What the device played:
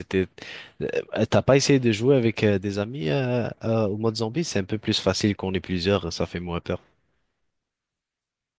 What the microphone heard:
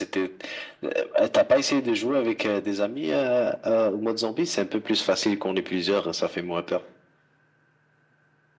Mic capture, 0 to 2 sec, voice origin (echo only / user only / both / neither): echo only